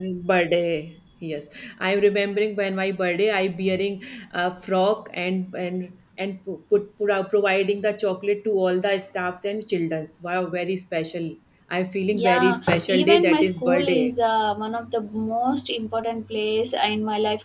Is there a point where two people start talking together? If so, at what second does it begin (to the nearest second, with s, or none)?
12 s